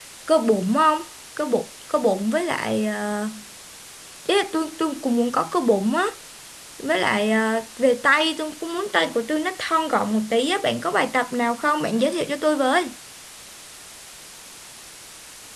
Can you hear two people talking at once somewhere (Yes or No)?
No